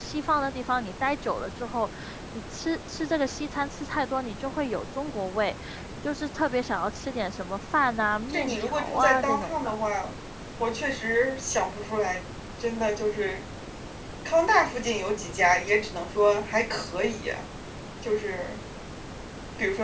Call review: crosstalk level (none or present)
present